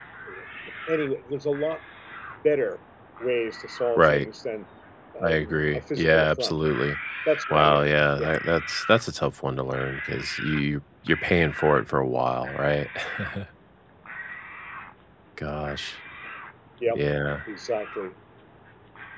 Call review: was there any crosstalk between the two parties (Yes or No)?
Yes